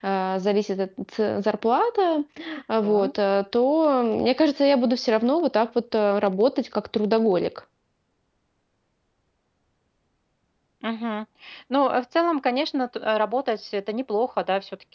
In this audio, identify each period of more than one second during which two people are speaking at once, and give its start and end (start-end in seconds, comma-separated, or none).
none